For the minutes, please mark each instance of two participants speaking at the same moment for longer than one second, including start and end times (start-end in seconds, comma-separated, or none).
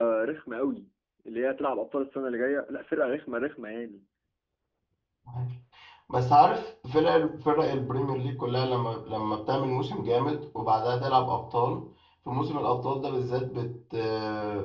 none